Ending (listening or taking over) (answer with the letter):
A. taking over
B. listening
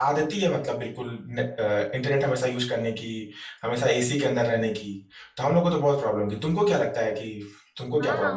A